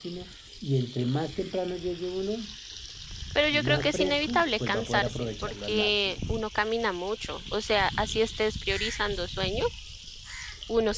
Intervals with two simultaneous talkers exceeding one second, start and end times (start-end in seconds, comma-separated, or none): 3.5-6.2